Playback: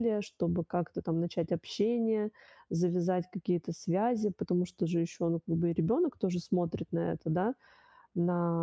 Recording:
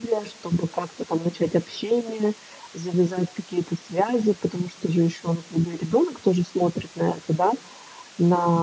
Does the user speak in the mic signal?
No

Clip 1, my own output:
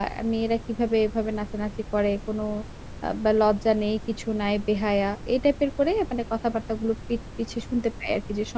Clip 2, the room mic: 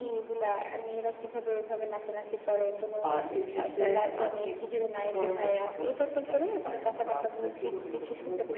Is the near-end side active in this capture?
Yes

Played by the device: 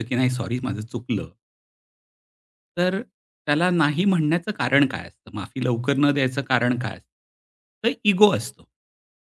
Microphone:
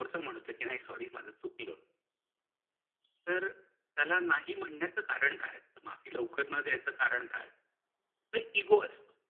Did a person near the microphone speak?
No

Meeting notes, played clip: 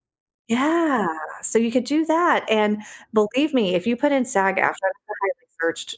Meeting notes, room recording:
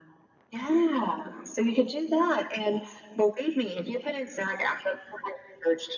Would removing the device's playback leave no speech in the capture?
Yes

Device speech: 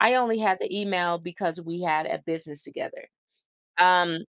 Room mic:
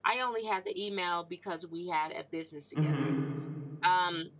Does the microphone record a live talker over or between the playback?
Yes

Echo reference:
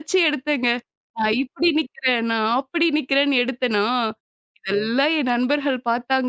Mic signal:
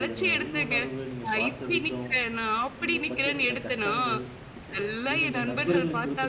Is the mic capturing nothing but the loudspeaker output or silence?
No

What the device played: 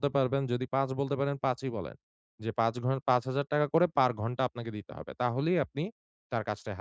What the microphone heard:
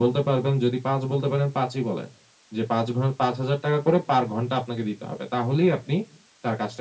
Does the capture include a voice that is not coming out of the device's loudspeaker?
No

